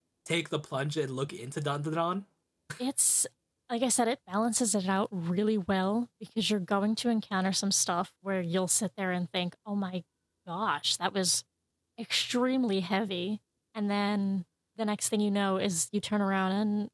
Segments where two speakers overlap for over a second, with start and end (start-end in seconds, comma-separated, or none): none